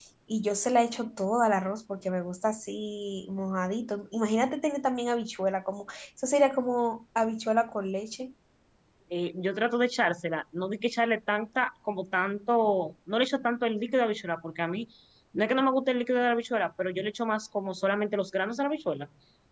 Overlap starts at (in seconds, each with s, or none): none